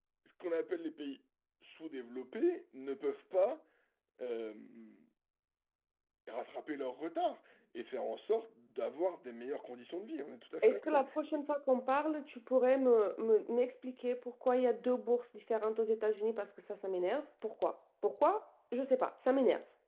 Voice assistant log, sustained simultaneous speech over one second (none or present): none